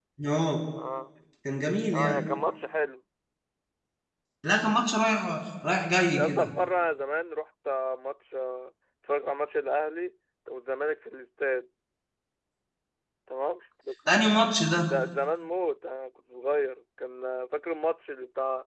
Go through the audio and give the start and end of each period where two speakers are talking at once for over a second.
none

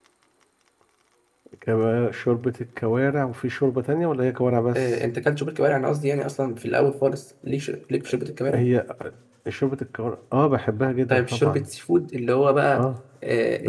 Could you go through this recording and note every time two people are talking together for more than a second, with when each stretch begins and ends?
none

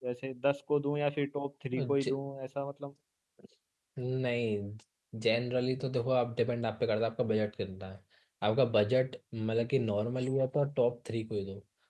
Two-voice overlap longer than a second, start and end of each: none

